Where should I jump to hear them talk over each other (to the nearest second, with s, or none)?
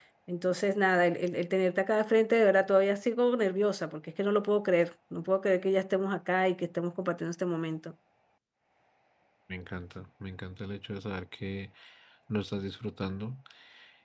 none